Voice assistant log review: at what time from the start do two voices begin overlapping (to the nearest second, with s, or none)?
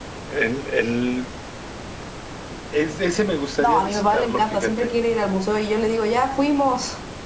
4 s